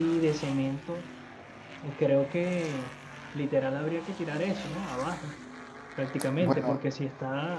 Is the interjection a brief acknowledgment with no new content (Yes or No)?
Yes